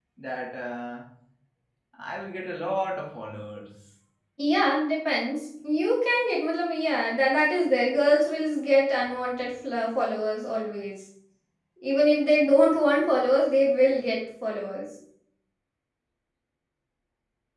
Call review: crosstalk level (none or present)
none